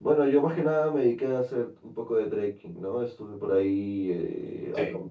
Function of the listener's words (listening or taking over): listening